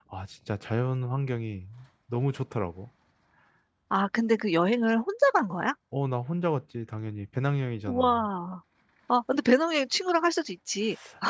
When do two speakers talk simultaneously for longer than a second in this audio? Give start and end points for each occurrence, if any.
none

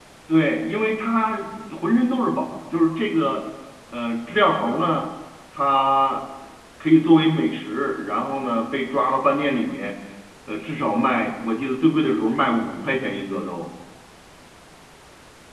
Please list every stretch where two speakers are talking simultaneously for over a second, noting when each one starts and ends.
none

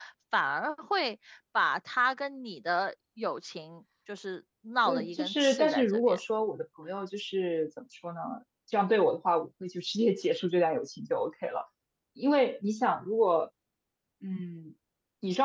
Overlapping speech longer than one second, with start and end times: 4.8-6.2

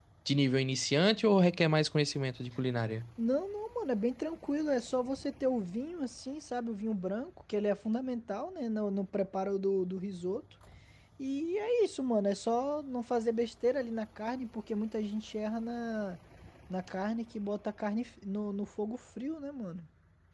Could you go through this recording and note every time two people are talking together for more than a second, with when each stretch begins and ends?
none

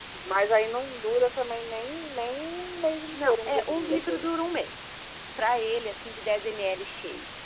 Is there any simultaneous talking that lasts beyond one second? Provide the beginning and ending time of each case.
3.1-4.3

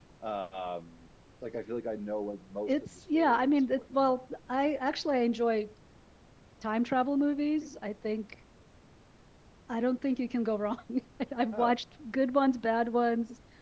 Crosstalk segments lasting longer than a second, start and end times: 2.7-4.2

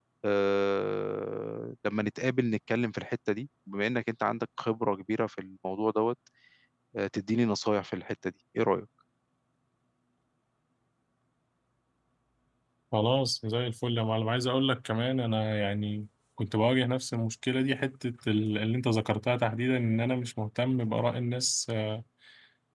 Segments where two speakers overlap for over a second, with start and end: none

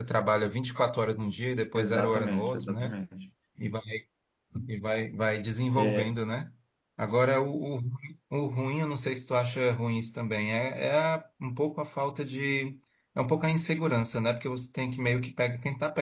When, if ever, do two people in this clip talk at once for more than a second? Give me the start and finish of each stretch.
1.8-3.0

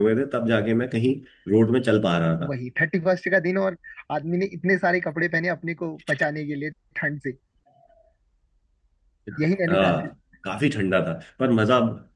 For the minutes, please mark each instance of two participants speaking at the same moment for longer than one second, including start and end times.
none

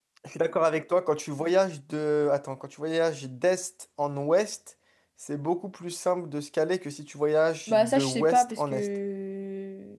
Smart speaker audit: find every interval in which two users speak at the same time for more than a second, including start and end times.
7.7-8.9

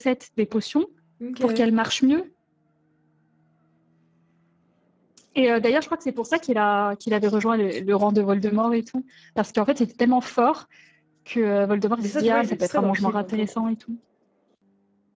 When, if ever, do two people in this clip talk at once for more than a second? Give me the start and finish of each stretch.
12.0-13.6

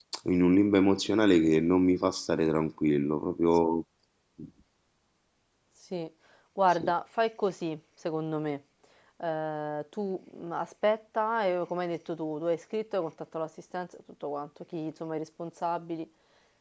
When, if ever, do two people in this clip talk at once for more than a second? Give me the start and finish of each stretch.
none

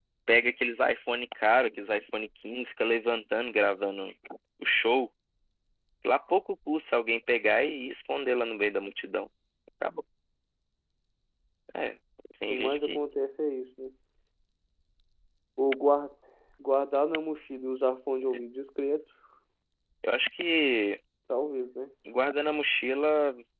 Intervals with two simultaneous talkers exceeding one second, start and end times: none

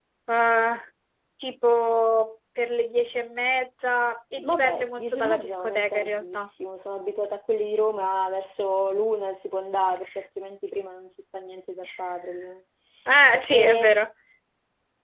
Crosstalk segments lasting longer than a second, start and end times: 4.5-6.5

